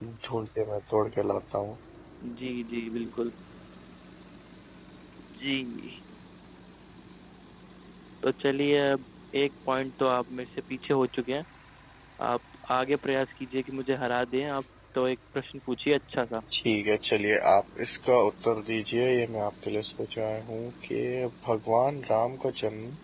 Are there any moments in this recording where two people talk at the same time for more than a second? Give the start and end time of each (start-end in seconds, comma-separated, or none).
none